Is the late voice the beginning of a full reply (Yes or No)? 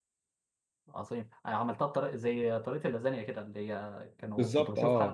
Yes